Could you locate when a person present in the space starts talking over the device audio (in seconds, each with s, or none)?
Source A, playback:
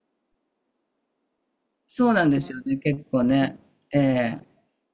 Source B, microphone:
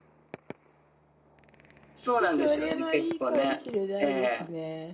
2.3 s